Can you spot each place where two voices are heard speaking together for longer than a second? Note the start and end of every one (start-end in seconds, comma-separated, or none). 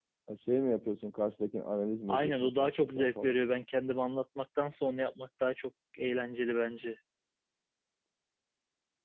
2.1-3.4